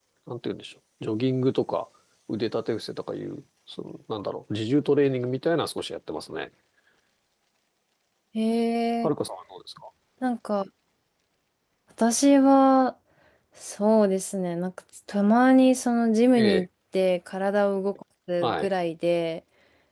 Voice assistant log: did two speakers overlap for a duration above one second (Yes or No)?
No